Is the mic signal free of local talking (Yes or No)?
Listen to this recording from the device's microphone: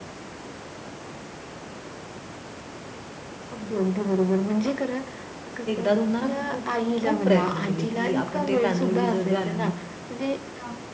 No